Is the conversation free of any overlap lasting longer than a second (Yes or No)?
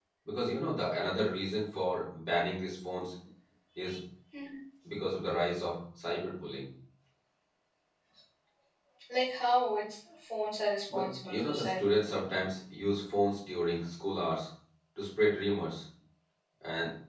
No